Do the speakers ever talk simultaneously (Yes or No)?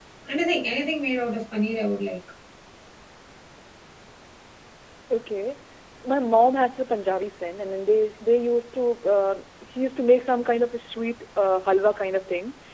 No